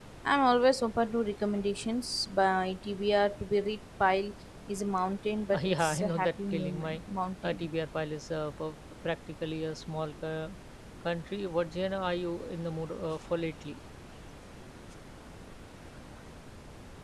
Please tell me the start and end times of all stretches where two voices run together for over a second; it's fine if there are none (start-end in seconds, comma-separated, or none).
5.5-7.0